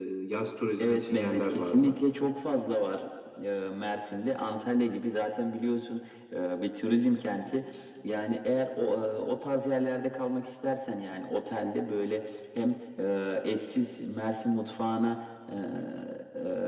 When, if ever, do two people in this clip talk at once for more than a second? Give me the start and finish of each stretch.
0.8-2.0

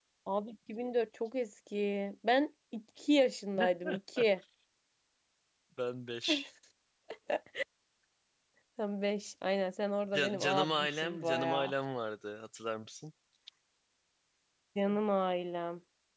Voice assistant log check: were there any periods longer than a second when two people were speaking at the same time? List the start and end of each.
10.4-11.7

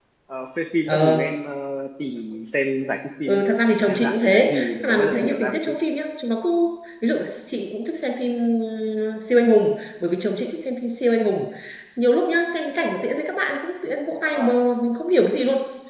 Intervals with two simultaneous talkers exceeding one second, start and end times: 3.9-5.8

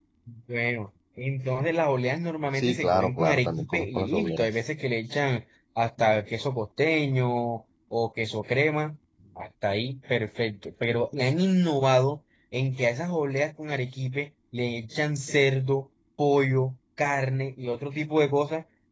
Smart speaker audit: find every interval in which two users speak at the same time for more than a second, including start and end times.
2.6-4.5

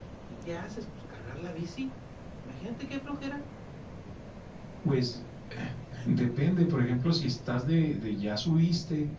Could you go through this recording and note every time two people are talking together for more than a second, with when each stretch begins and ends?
none

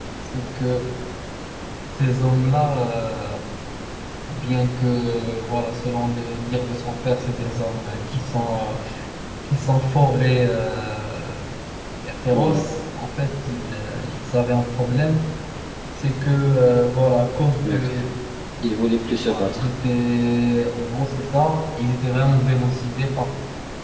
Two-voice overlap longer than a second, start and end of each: none

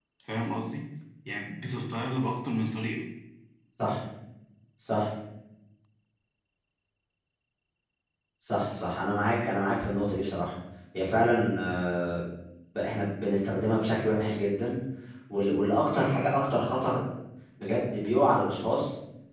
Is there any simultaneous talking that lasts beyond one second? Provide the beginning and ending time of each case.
none

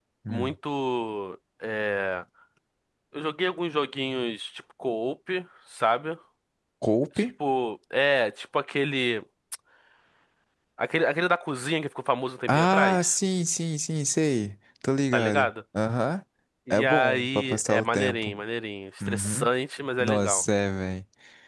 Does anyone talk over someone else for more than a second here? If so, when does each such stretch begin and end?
16.7-18.3

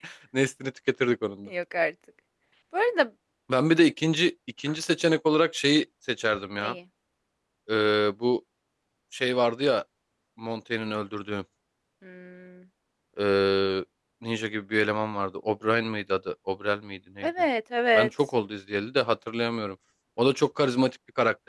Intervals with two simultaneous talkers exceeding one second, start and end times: none

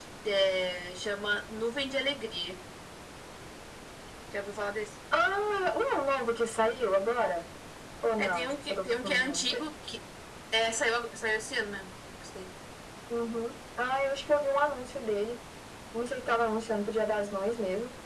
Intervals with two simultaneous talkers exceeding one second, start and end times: 8.2-9.4

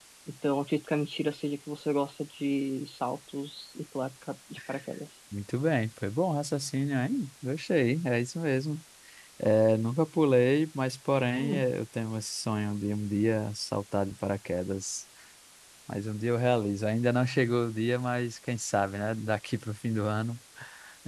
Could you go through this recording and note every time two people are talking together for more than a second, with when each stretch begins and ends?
none

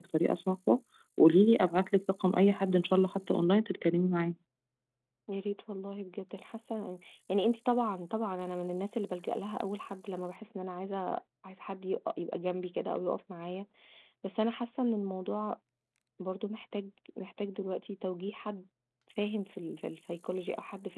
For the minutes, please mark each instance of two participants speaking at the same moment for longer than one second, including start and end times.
none

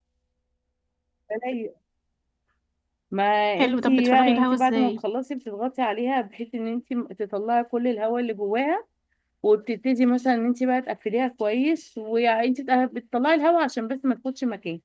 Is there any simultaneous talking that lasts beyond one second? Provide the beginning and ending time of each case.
3.6-4.9

